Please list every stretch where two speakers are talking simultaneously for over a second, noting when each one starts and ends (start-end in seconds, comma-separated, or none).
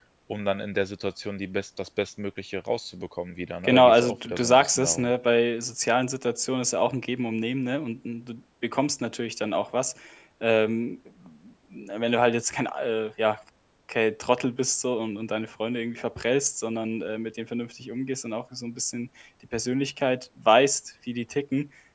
3.6-5.1